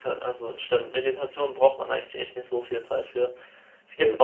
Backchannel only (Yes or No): Yes